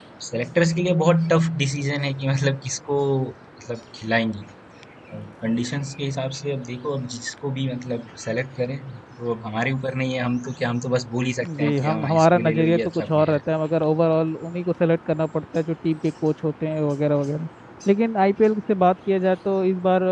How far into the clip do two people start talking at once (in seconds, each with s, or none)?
11.4 s